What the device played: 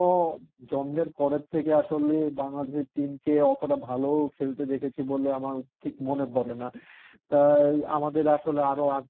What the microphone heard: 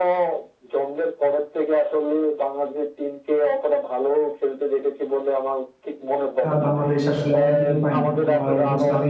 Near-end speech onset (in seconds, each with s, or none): 6.5 s